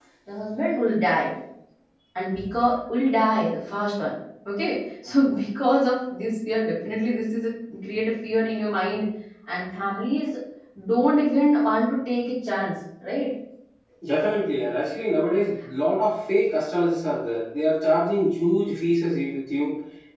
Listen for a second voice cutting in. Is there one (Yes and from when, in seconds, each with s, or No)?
No